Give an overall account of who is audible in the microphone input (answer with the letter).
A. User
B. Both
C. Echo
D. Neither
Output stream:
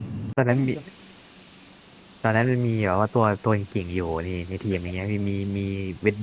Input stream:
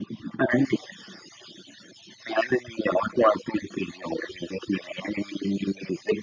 C